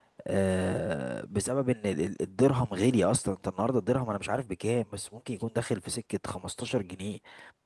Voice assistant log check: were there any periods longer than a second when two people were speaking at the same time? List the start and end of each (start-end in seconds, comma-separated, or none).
none